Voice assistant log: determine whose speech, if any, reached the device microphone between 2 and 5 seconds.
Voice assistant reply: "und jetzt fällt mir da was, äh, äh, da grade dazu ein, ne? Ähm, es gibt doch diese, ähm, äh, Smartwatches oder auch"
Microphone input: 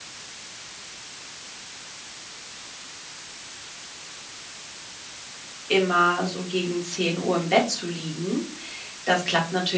neither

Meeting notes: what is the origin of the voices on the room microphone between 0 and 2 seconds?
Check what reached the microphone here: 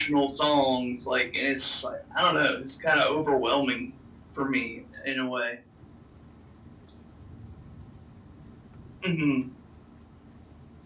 echo only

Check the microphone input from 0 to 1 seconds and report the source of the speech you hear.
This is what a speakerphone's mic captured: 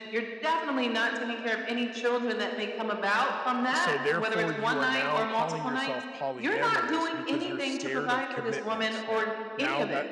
echo only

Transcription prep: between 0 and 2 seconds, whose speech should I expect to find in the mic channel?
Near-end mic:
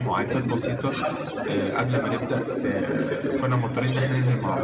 both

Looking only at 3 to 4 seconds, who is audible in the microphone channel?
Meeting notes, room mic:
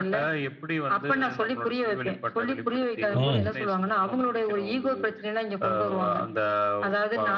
both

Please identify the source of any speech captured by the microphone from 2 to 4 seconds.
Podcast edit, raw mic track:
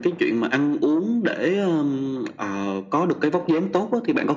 echo only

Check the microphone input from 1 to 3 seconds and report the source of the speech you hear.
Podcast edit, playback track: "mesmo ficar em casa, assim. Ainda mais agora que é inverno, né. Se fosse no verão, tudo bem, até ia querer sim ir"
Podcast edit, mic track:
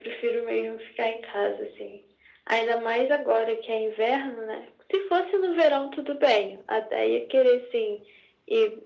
echo only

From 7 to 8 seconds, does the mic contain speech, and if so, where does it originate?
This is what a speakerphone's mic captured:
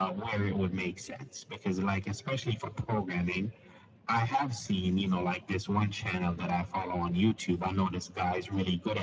echo only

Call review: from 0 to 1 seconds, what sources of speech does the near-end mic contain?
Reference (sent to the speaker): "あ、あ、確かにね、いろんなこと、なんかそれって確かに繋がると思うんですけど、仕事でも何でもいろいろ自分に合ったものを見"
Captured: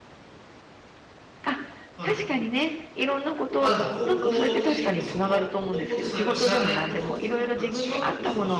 neither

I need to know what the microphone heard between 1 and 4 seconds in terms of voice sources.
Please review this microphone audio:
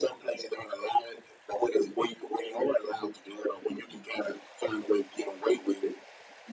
echo only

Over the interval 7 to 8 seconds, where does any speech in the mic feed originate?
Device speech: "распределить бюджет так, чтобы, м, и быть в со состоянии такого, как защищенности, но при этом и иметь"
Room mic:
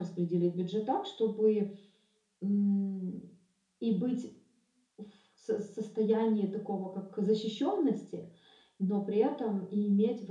echo only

